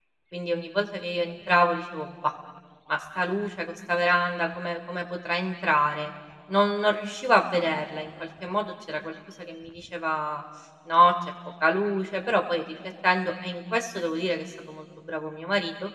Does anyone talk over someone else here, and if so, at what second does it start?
none

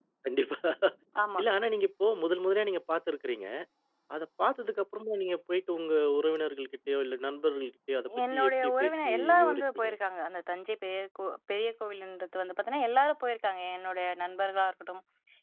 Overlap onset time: 8.1 s

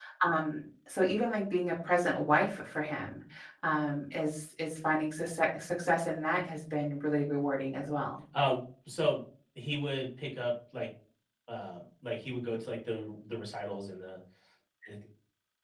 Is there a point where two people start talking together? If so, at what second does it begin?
none

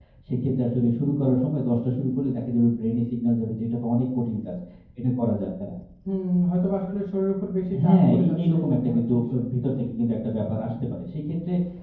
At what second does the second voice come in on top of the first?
7.7 s

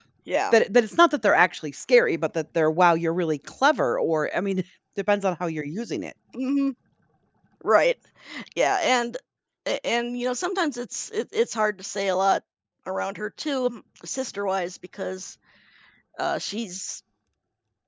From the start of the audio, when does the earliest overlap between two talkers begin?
none

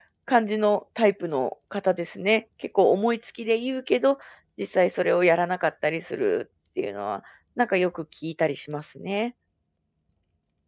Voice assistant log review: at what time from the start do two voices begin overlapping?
none

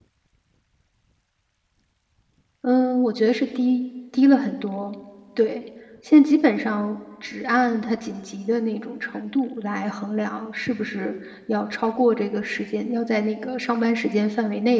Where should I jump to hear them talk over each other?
none

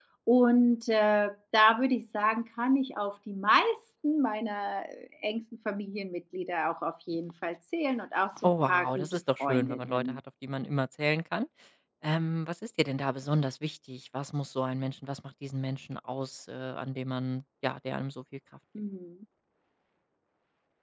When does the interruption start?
8.4 s

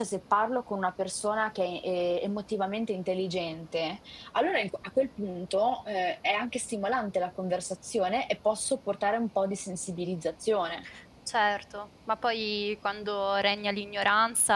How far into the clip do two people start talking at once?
none

